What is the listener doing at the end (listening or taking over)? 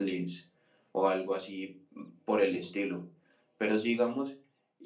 listening